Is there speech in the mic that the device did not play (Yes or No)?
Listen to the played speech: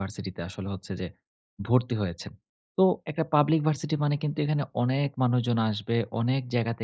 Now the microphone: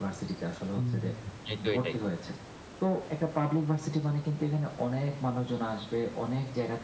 Yes